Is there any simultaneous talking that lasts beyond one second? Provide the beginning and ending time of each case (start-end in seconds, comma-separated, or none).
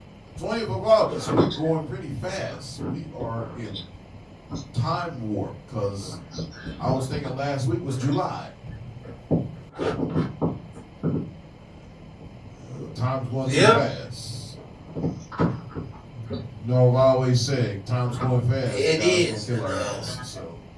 18.7-20.0